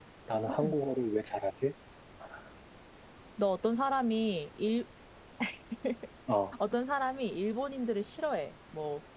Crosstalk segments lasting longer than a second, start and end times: none

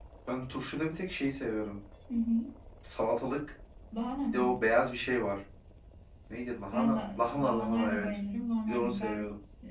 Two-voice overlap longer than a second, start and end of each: 6.7-8.1

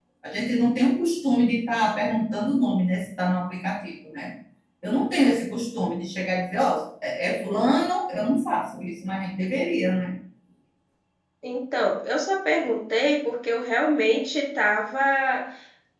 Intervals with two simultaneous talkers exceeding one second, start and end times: none

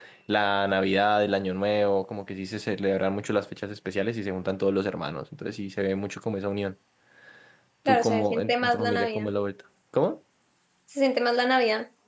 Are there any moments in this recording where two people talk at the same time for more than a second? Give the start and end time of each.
7.9-9.3

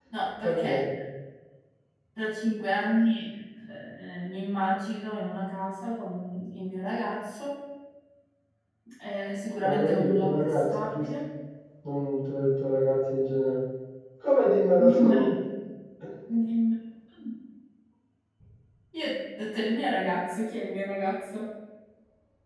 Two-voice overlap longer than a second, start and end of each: 9.6-11.1

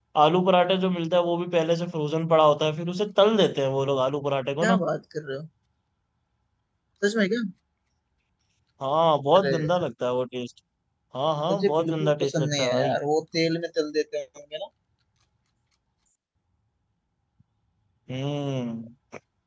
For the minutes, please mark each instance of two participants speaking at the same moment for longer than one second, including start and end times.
11.5-12.9

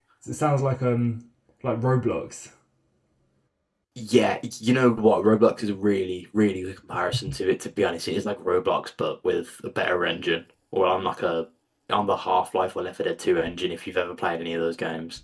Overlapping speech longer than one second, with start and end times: none

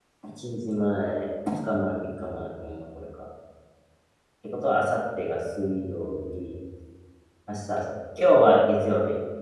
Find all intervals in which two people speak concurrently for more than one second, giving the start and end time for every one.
none

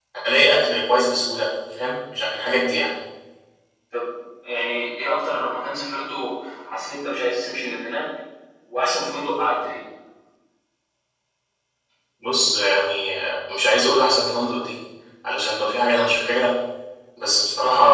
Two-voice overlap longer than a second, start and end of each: none

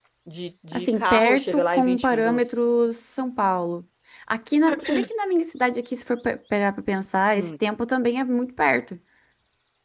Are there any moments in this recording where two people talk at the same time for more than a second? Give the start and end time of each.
0.7-2.4

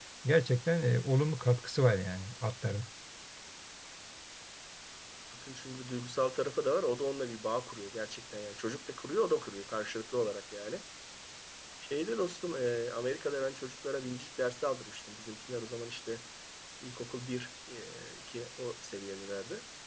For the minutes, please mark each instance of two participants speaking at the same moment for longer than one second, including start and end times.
none

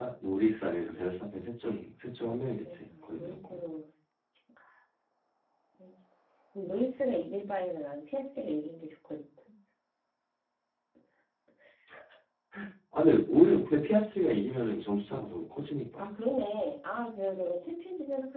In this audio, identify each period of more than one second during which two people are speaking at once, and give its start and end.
2.2-3.6

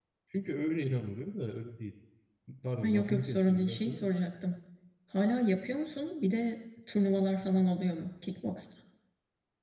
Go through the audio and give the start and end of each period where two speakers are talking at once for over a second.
2.8-4.3

